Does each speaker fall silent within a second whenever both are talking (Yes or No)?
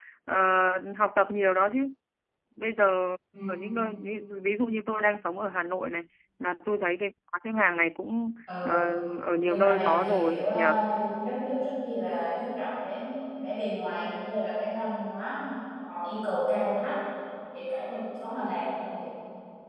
No